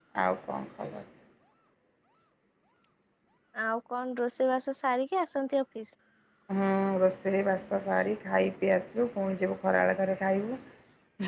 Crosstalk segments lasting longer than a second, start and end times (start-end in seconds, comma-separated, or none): none